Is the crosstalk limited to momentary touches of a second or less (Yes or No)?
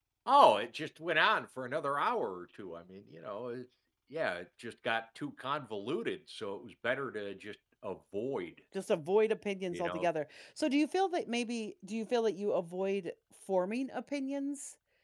Yes